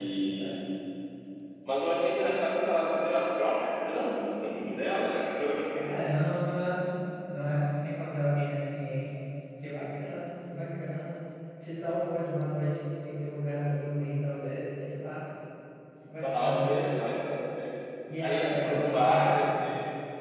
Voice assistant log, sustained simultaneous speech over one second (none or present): present